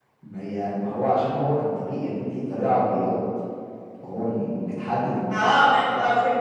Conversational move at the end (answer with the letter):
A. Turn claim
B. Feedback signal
A